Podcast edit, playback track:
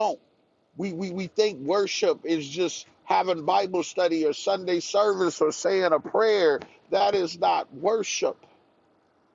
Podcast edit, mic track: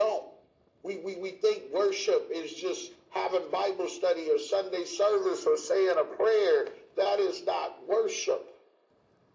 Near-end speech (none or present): none